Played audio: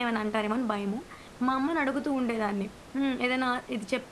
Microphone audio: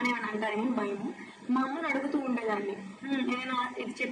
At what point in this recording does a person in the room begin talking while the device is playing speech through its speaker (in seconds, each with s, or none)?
none